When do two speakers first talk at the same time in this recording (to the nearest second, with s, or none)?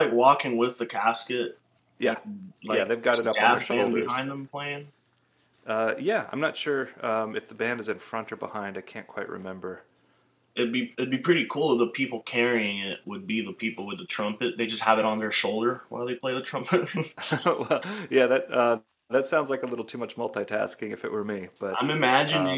3 s